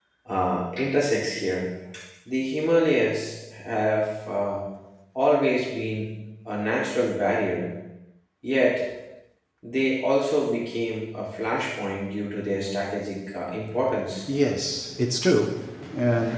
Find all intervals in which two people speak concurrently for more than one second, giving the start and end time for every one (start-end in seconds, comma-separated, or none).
none